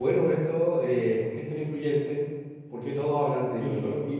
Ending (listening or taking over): listening